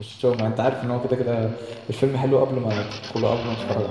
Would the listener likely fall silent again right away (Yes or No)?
No